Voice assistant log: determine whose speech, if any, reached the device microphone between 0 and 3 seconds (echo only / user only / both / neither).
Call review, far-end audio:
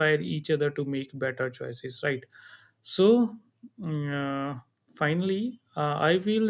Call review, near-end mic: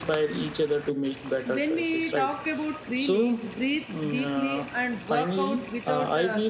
both